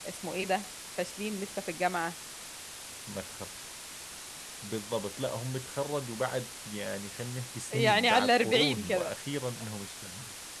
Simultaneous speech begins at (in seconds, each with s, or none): 7.7 s